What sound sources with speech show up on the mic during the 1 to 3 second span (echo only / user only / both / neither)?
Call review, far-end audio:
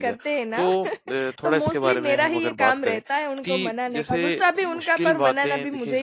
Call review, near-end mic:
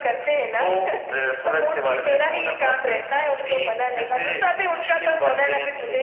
echo only